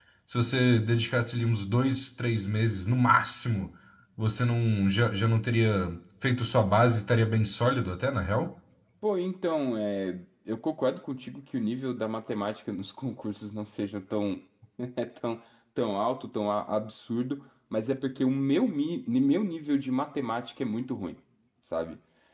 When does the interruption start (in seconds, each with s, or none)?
none